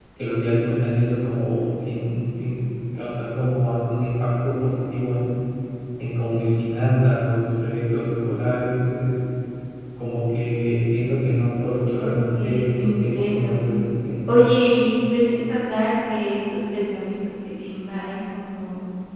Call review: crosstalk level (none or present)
present